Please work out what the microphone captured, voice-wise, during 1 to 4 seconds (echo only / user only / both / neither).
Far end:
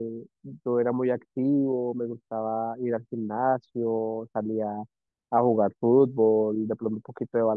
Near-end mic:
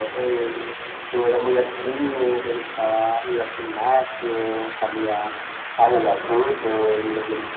echo only